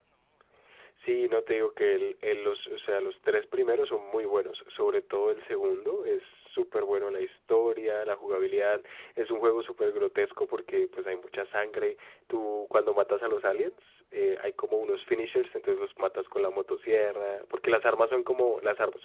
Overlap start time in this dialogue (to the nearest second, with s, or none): none